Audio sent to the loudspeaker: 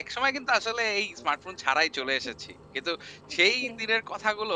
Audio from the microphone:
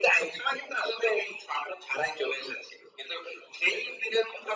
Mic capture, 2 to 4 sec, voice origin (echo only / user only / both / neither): echo only